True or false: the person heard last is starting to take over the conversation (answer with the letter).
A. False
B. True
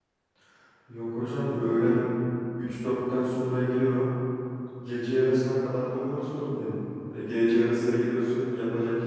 A